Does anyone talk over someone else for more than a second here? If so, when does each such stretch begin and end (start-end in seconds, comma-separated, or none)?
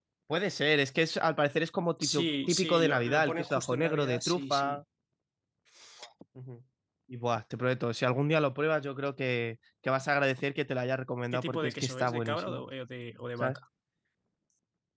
2.0-4.8, 11.3-12.6